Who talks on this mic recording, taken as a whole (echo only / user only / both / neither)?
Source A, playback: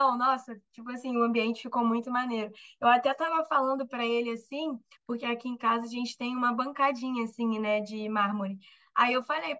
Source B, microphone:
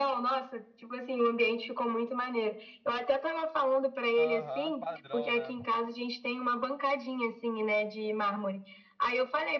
both